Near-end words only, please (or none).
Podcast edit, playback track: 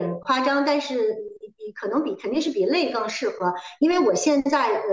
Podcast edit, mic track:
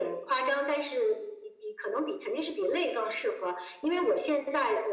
none